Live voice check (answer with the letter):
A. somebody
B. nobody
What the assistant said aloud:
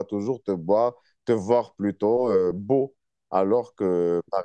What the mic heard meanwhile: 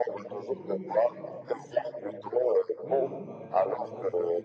A